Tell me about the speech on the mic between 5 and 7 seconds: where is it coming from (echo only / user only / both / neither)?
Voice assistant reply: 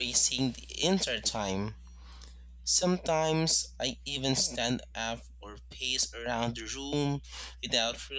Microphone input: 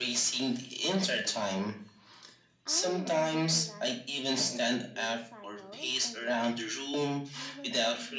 both